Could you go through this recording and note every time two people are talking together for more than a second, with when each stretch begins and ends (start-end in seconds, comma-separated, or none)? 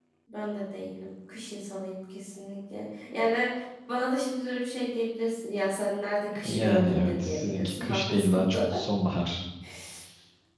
6.4-8.4